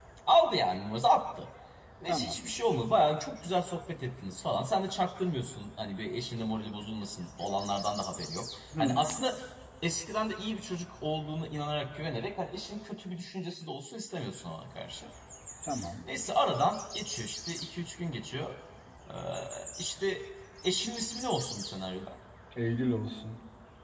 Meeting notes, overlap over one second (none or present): none